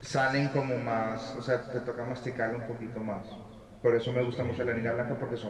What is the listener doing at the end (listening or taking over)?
listening